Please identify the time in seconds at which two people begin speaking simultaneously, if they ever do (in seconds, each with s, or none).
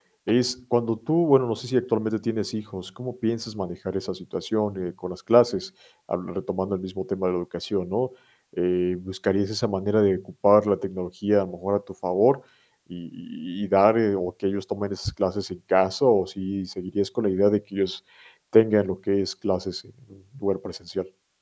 none